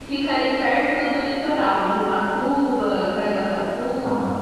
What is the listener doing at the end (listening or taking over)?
listening